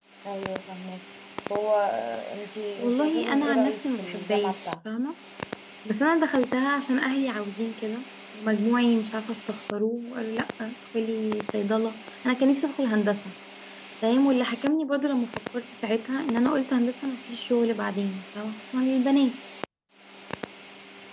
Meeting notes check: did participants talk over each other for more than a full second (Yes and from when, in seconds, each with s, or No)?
Yes, from 2.8 s